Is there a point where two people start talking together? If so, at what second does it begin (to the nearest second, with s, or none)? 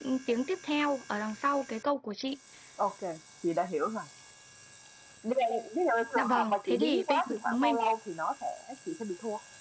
6 s